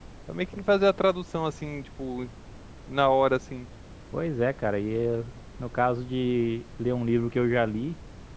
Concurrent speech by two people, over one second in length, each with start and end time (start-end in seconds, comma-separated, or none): none